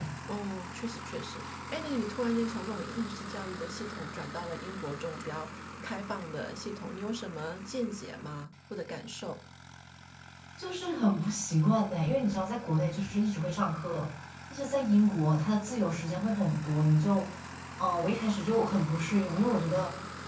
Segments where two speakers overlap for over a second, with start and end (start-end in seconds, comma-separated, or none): none